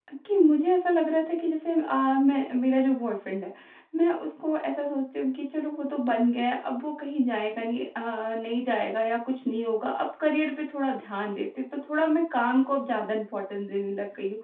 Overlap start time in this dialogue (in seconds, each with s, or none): none